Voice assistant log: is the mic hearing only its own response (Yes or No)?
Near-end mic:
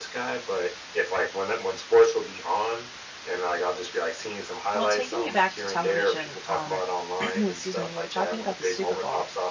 No